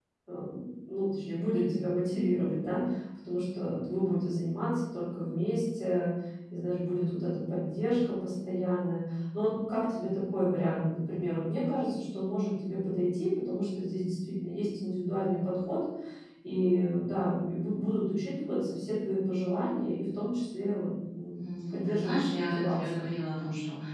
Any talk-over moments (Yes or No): Yes